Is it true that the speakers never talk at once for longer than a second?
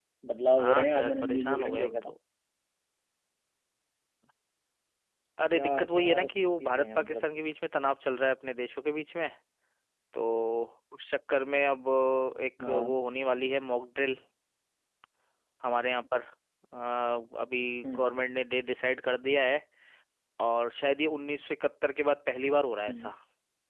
No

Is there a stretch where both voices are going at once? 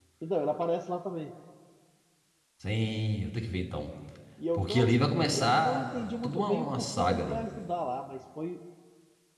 Yes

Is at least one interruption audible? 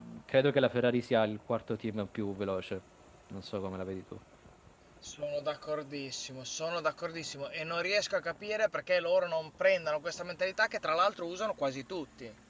No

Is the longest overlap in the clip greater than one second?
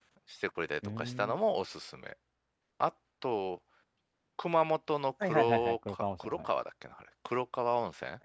Yes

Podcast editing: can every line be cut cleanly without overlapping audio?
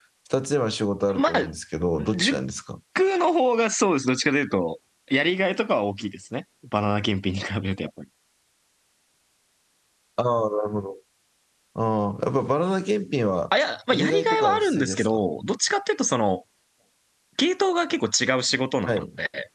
No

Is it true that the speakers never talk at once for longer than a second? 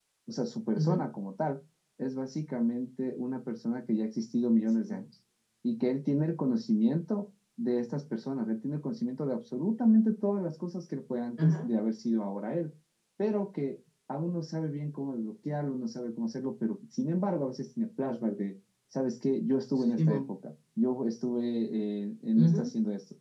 Yes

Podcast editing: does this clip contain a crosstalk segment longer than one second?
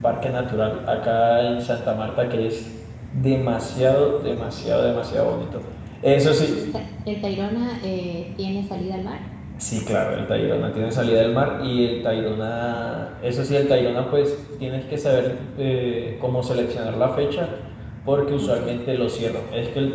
No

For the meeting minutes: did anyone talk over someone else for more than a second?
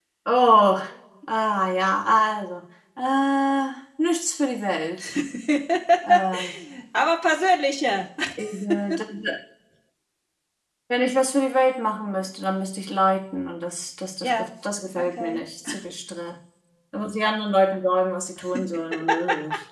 No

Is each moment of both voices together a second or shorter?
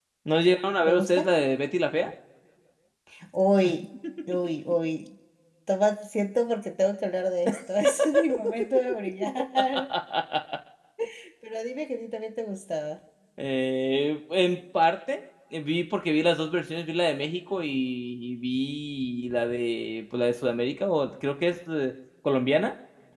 Yes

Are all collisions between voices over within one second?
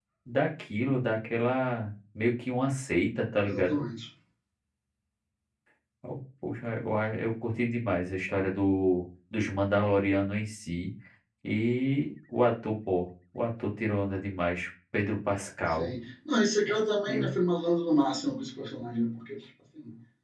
Yes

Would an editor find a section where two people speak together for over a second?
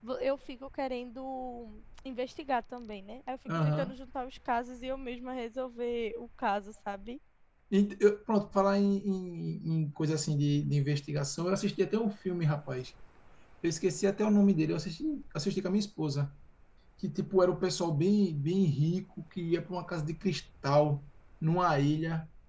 No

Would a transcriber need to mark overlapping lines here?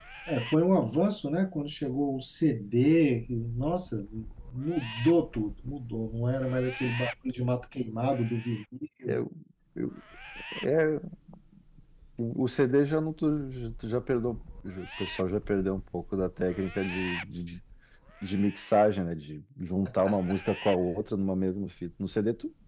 No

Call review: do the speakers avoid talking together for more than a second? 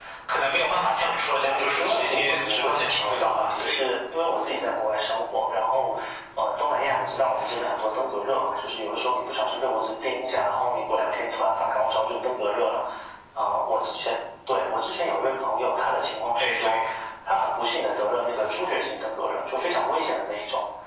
No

